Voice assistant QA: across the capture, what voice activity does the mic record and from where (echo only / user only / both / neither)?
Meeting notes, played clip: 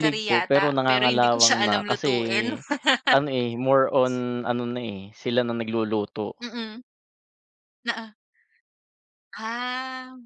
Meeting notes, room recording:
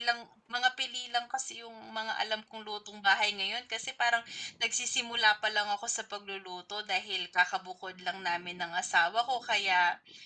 user only